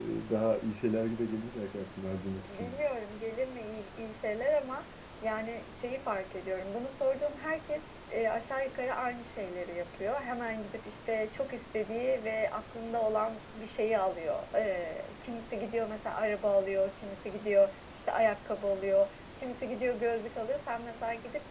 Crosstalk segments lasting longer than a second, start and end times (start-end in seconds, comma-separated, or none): none